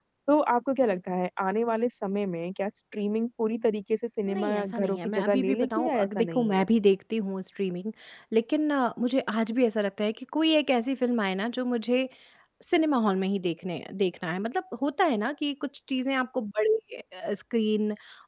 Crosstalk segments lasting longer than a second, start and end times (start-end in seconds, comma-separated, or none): 4.3-6.7